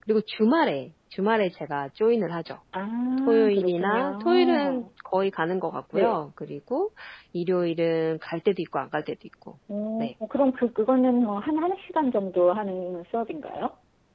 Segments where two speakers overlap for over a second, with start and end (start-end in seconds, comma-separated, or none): 3.3-4.8